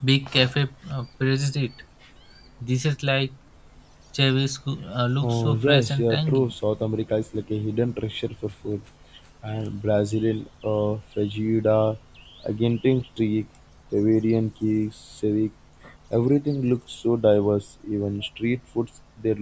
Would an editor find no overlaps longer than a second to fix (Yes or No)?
No